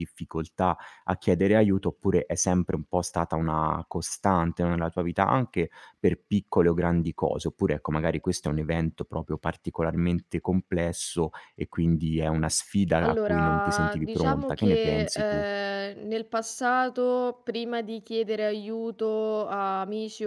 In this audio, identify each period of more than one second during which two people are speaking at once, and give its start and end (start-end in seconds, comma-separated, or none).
13.0-15.4